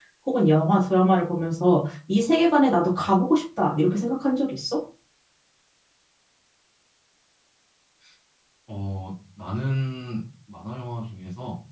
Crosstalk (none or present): none